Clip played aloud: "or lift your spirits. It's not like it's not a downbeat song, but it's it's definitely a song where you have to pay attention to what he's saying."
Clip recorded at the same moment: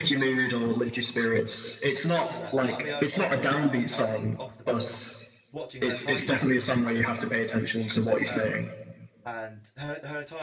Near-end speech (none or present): present